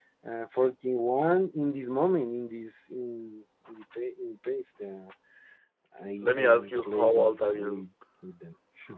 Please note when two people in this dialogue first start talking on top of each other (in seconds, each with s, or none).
6.2 s